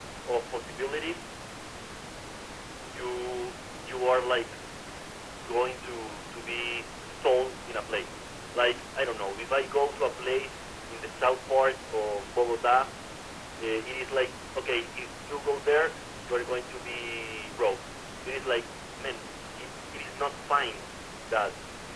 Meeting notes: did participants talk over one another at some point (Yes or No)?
No